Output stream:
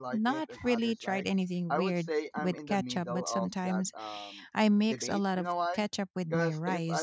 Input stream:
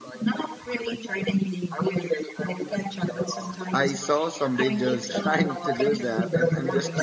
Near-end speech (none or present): present